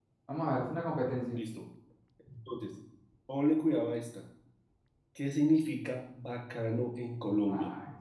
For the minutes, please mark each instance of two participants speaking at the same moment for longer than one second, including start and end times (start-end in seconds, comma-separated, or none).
none